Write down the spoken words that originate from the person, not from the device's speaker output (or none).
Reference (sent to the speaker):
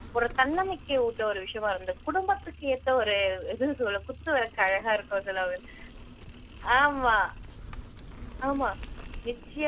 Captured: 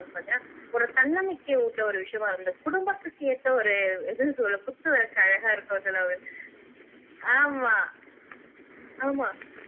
none